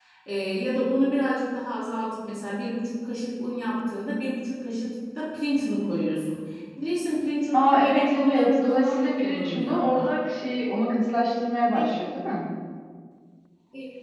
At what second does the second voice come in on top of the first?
7.5 s

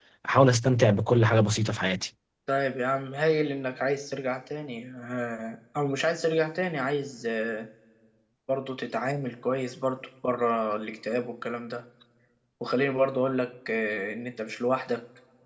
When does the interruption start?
none

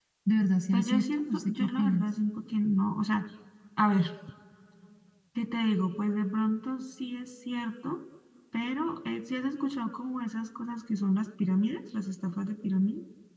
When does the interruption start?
0.7 s

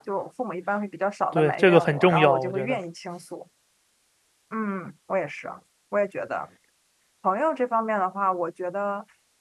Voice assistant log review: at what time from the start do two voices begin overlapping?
1.3 s

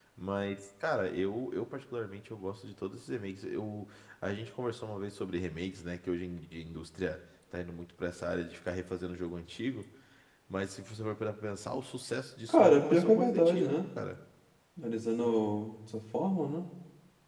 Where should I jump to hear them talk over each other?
12.5 s

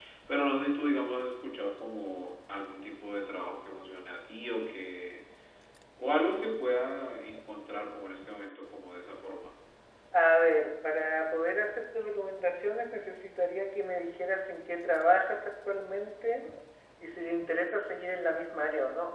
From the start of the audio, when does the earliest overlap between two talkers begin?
none

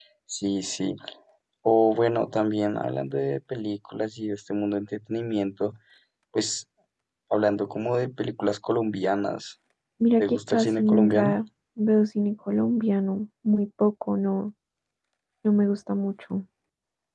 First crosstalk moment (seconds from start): 10.2 s

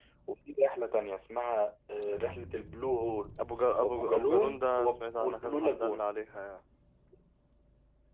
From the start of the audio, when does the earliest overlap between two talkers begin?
3.8 s

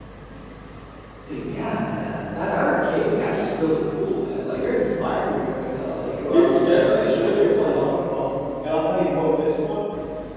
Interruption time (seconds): 6.3 s

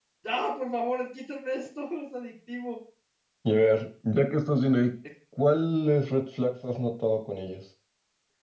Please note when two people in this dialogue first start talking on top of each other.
none

